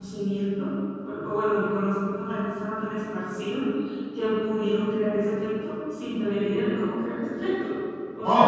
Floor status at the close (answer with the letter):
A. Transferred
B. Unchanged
A